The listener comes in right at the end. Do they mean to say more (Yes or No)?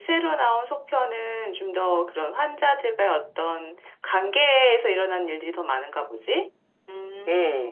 Yes